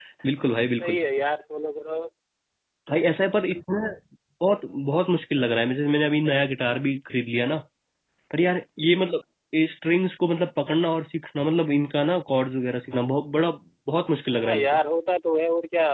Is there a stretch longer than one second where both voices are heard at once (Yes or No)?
No